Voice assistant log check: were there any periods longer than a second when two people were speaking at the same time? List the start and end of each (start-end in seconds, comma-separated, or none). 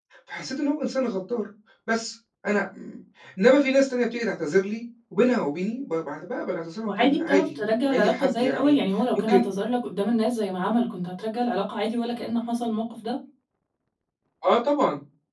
6.8-8.8